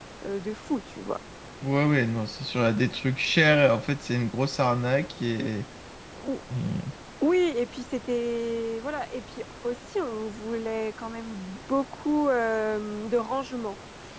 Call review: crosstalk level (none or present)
none